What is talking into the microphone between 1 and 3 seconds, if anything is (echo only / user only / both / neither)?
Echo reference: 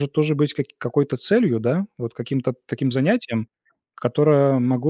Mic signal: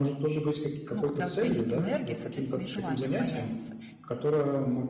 both